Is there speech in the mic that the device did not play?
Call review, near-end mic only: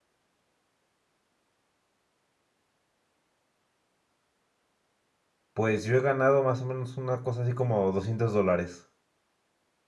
Yes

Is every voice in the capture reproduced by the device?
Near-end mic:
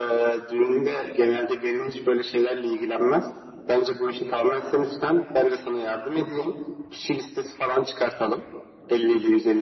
Yes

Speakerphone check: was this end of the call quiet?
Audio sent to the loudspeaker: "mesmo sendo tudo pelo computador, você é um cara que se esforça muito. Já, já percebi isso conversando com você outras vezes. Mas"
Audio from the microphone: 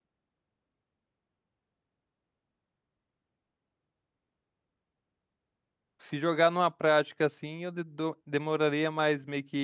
No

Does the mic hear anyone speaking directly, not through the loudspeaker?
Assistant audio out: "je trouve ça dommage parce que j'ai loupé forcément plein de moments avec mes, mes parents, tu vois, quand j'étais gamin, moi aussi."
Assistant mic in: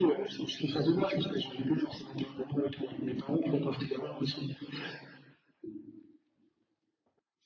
No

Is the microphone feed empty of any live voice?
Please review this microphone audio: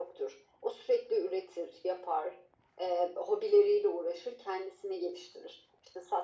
Yes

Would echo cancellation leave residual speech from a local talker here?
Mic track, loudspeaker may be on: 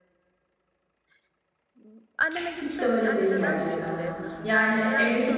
Yes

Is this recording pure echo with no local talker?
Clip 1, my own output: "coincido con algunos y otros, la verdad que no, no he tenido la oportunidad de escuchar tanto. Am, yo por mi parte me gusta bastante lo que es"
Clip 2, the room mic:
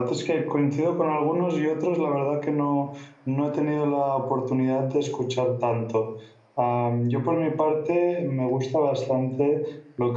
Yes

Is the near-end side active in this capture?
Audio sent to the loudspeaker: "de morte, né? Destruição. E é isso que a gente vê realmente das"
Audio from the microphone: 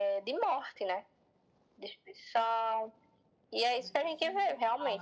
Yes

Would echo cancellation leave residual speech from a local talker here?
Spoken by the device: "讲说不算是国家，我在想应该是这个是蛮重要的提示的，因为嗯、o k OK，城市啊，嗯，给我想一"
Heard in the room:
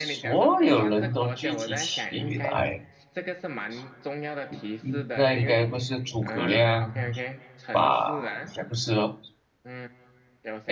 Yes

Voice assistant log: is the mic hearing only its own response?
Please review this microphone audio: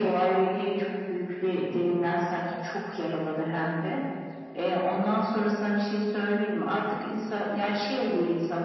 Yes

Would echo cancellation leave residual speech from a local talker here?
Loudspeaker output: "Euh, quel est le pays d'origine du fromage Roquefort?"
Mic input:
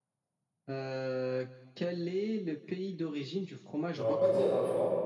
Yes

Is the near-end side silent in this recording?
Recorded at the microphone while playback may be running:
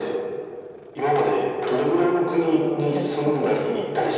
No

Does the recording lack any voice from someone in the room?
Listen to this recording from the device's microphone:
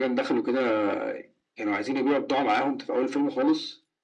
Yes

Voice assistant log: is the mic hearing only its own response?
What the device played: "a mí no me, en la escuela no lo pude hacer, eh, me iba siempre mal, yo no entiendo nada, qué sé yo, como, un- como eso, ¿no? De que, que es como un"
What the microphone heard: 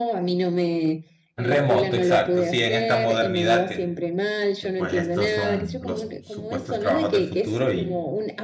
No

